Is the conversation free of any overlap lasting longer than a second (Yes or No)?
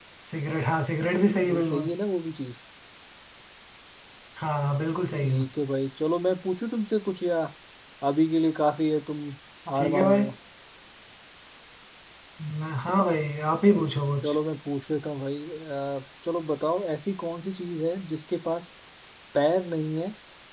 Yes